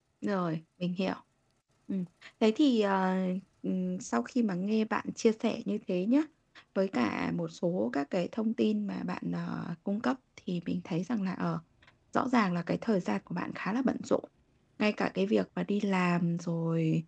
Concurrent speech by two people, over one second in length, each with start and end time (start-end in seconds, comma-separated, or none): none